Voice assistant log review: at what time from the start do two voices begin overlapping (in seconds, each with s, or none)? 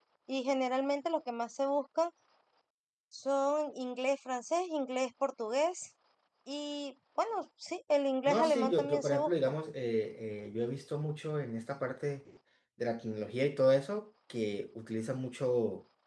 8.3 s